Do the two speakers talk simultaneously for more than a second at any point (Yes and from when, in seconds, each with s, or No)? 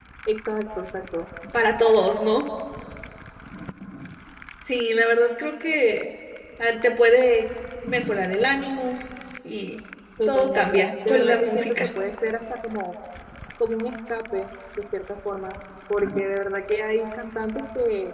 Yes, from 10.3 s